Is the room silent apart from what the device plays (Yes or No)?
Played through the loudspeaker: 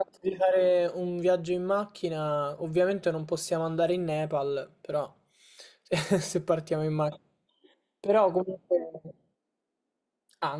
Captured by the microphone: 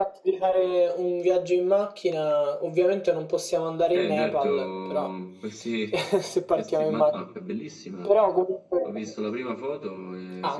No